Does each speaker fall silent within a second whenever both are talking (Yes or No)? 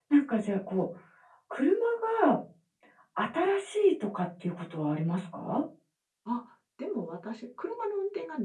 Yes